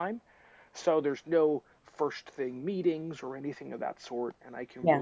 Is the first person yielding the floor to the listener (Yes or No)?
No